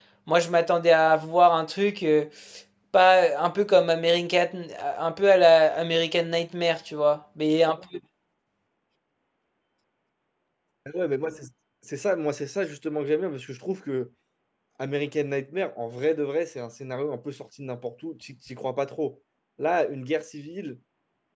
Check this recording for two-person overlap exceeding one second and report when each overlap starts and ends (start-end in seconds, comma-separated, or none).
none